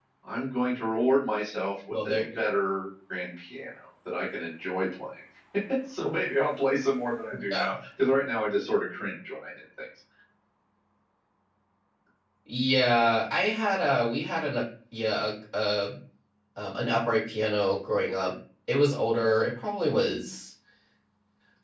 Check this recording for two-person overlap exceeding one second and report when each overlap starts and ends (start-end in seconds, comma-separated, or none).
none